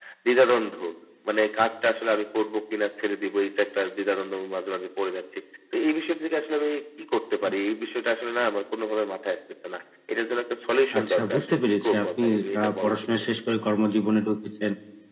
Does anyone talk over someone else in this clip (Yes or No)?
Yes